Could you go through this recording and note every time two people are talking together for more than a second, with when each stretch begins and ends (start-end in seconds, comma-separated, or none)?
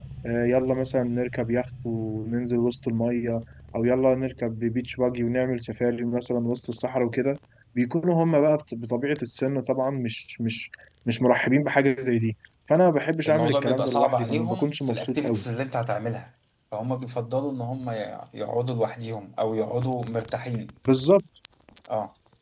13.2-15.4